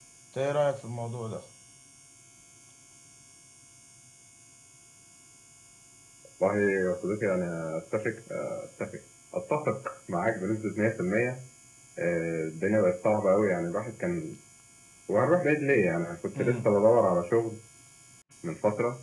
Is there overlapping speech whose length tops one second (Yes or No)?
No